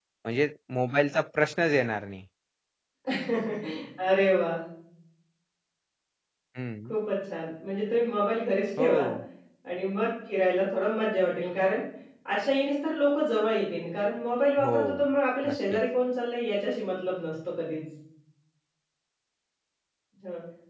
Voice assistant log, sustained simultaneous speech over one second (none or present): none